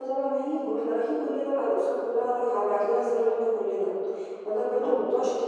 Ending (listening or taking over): listening